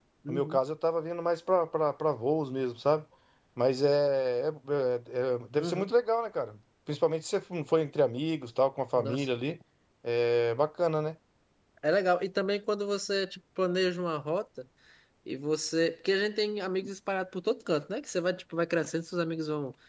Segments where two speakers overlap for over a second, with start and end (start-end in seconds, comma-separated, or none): none